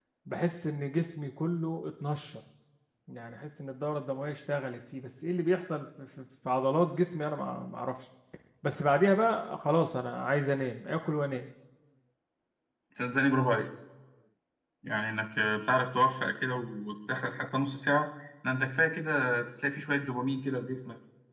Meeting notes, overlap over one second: none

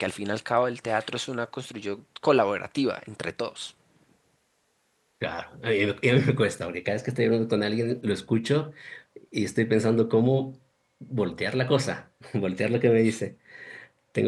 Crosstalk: none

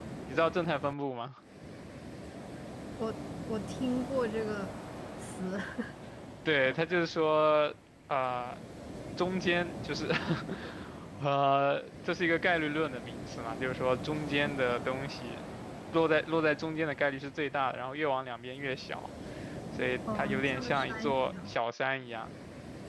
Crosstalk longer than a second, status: present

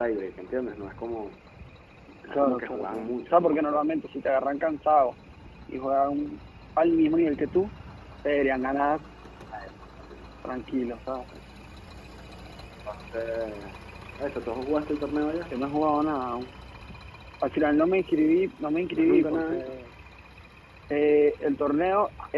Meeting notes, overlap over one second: present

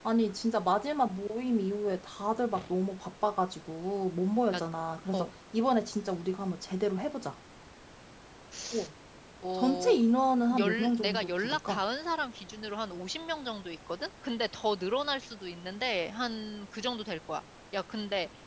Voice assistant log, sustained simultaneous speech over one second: present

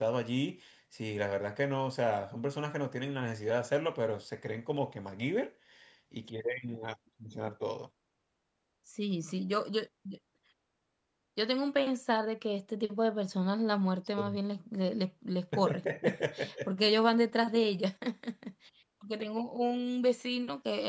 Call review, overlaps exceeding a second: none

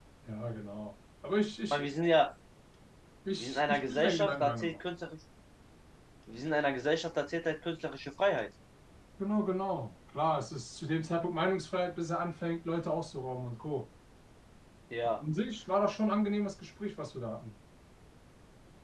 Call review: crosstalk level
present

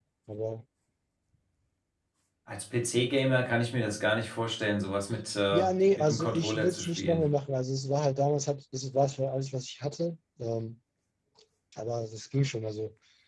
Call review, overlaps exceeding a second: present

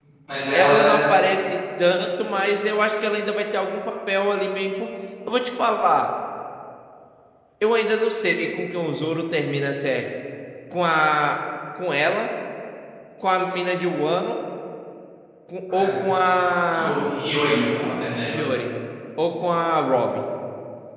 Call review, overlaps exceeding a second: none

